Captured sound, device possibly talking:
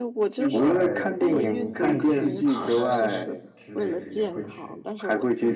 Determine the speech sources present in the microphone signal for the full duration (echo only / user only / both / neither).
both